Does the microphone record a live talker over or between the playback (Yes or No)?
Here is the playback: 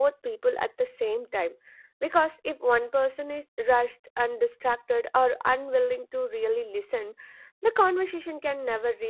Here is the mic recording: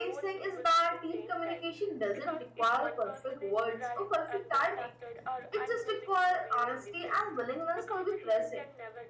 Yes